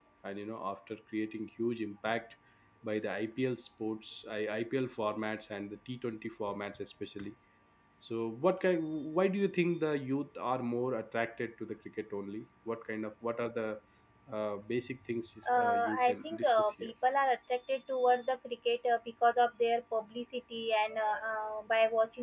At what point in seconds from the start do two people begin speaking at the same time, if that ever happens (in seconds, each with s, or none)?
15.4 s